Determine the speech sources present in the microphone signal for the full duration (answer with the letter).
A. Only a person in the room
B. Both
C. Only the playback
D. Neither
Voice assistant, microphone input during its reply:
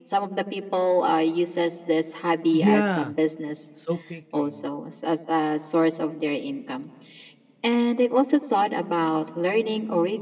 B